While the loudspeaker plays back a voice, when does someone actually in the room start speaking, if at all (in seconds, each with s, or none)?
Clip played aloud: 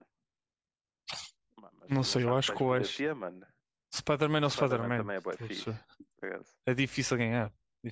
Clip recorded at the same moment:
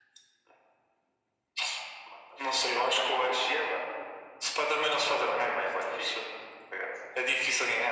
none